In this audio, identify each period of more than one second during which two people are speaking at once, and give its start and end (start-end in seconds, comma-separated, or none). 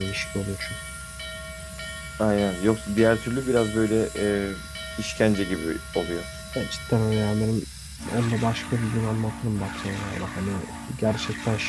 none